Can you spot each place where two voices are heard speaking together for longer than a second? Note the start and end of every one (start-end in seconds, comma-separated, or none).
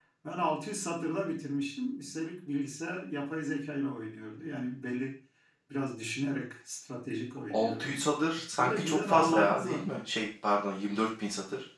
8.6-9.8